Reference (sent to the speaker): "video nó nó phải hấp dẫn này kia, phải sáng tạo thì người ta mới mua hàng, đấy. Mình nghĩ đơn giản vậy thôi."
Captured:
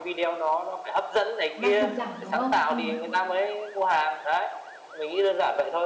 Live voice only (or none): đang tụt giảm, đúng không? Ừm.